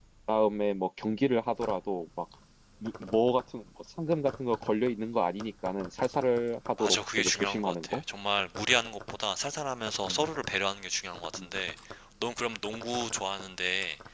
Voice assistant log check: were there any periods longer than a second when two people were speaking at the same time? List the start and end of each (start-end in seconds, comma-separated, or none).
6.8-8.0